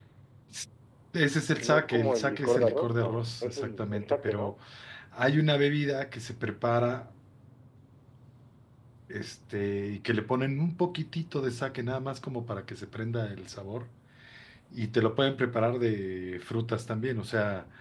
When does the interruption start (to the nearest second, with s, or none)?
2 s